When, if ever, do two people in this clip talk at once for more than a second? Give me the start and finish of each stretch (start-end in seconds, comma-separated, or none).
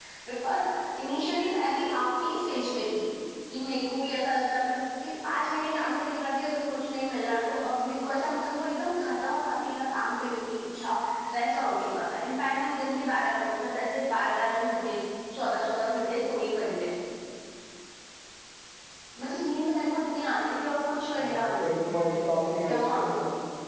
none